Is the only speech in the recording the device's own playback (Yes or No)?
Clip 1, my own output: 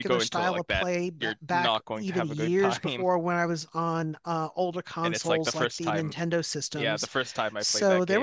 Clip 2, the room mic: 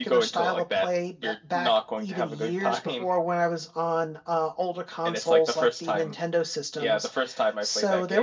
Yes